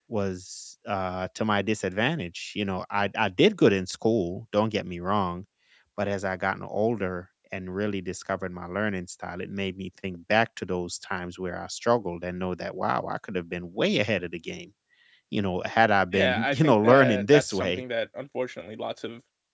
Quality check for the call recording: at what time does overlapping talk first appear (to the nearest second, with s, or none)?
16 s